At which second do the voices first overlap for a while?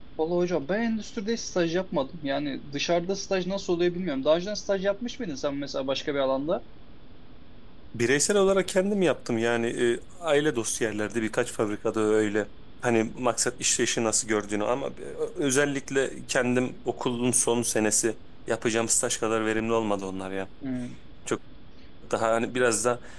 none

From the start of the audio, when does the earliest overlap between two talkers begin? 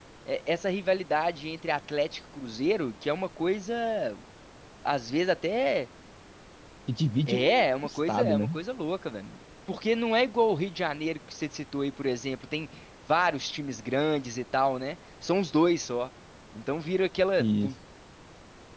7 s

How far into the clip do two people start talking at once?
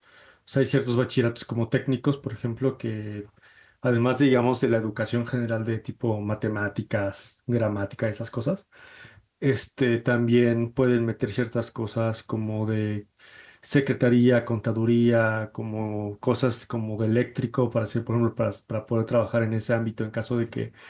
none

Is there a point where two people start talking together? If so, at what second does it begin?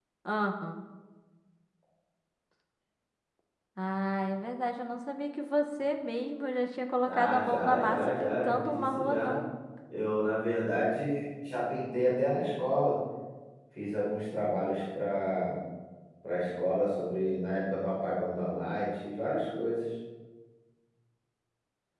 7 s

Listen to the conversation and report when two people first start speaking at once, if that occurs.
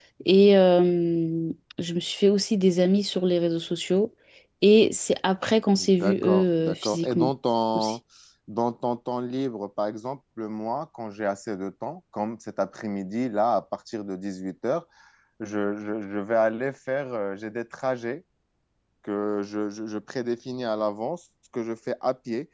6 s

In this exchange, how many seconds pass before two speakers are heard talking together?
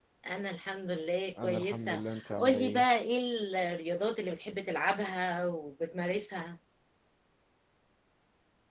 1 s

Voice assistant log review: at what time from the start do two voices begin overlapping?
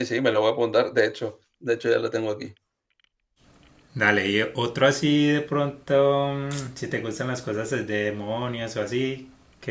none

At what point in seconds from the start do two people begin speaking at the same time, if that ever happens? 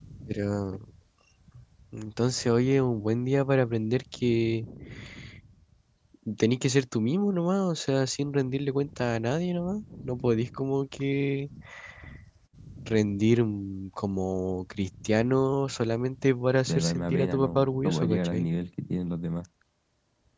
17 s

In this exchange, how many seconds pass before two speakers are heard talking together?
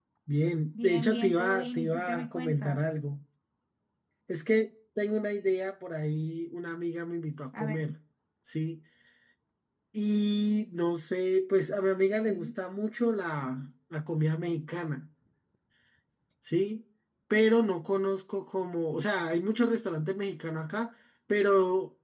1 s

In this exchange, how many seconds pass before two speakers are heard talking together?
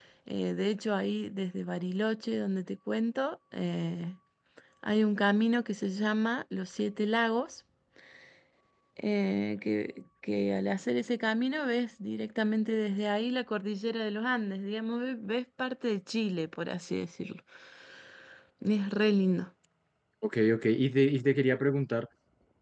none

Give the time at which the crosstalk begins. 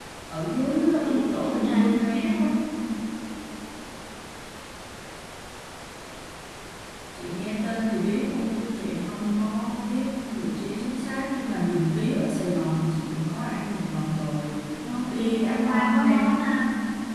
1 s

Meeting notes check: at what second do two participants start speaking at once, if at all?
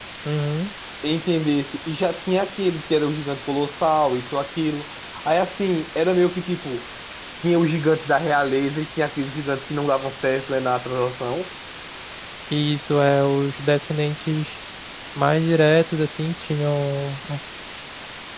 none

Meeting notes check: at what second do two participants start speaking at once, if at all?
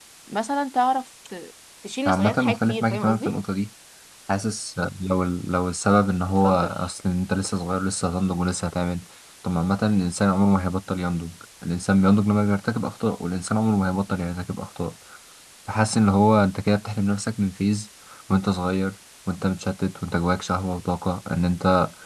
2 s

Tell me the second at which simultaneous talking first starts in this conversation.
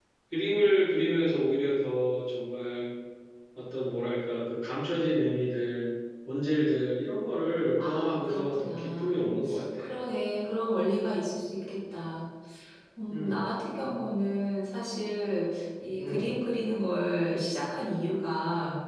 8 s

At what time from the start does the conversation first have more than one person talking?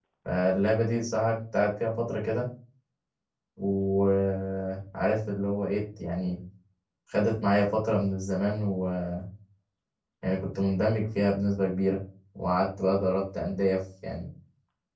none

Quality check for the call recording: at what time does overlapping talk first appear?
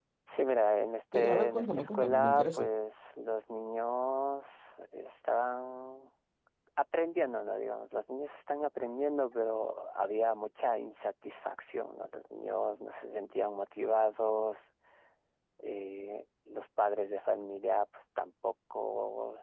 1 s

